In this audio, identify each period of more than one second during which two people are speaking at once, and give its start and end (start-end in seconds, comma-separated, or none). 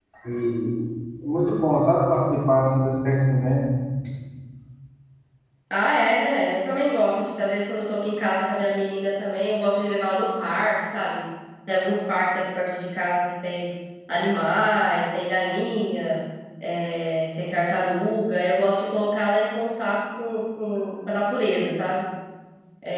none